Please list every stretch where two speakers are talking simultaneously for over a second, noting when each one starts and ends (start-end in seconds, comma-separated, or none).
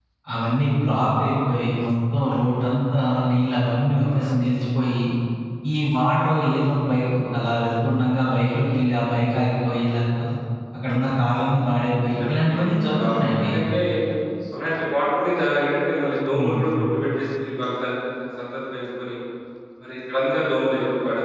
12.0-13.5